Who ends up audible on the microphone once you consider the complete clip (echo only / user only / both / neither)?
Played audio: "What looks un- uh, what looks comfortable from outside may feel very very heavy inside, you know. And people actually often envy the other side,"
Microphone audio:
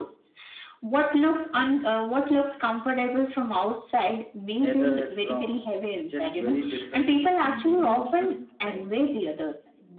both